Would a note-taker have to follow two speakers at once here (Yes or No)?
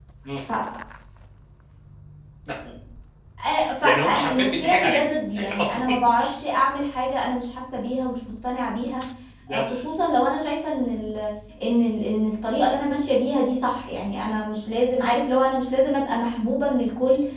Yes